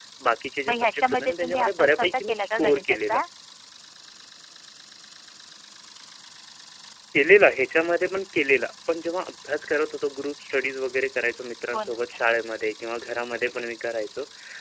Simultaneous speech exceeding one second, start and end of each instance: 0.7-3.2

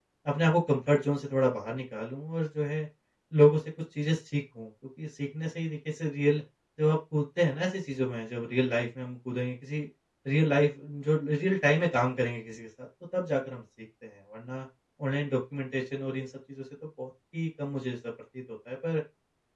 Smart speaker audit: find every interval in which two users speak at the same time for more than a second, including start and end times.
none

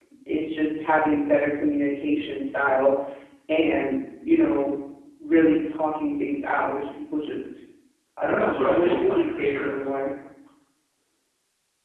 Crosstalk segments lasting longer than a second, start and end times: 8.4-9.8

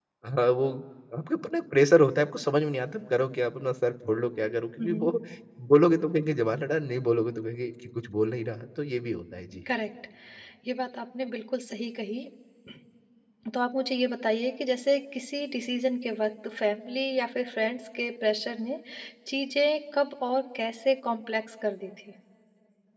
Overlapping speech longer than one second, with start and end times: none

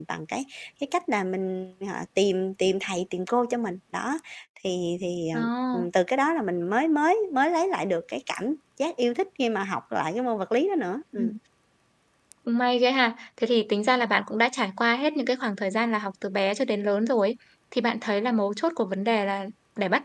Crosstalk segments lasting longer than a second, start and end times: none

